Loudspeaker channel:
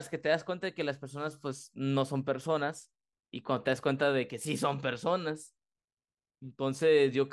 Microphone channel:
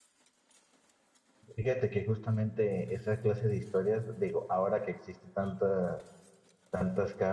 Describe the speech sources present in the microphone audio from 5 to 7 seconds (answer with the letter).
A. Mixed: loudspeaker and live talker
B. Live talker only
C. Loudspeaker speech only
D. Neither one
B